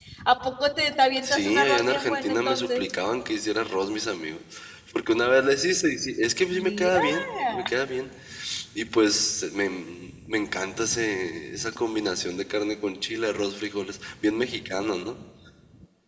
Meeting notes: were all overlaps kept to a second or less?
No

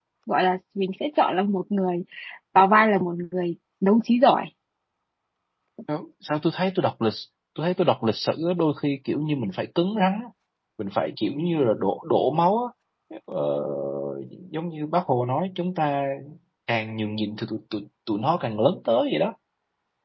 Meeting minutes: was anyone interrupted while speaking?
No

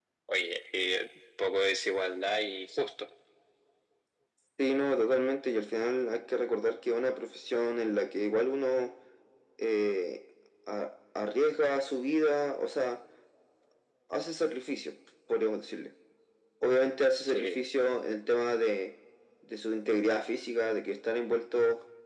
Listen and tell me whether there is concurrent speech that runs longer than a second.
No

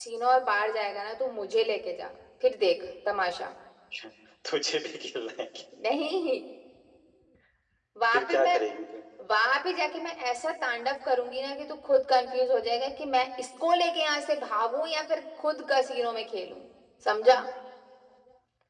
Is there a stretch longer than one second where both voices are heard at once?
No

